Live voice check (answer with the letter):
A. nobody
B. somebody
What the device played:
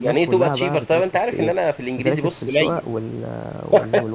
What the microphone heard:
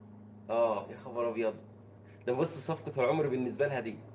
B